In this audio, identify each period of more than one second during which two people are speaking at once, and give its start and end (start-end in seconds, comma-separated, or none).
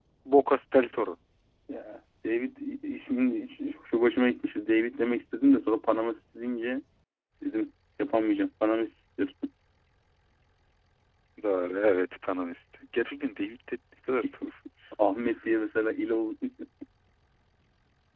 none